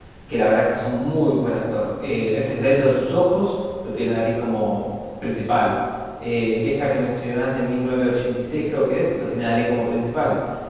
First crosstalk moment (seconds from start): none

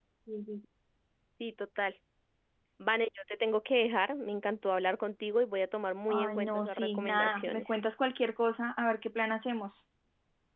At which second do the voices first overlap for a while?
6.1 s

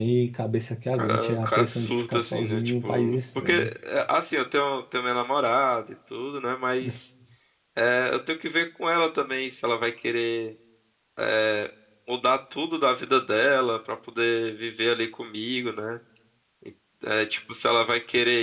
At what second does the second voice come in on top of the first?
0.9 s

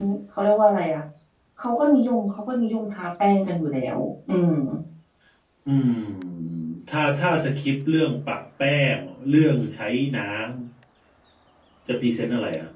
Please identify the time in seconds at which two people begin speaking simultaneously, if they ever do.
none

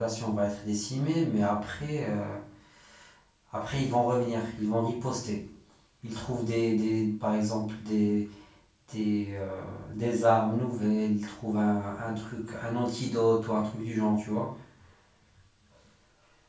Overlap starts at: none

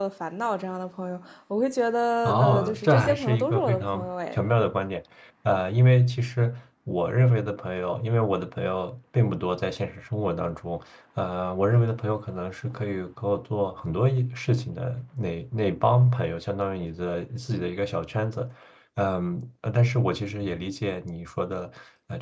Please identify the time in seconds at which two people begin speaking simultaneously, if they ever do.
2.2 s

